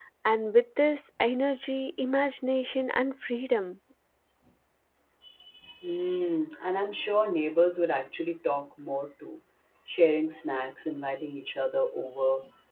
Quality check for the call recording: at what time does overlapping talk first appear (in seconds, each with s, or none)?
none